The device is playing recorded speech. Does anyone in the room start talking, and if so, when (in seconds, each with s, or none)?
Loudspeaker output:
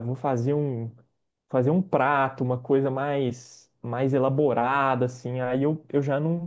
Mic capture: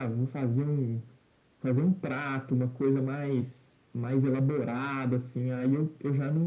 none